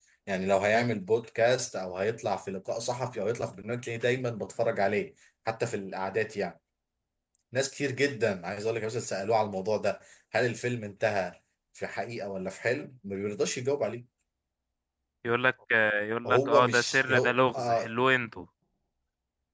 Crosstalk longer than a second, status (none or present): present